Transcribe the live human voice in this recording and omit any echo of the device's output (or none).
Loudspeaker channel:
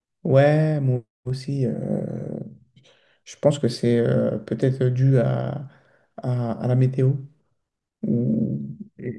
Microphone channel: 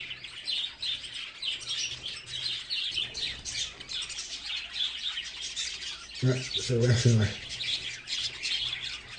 Ouais, c'est vrai, c'est vrai.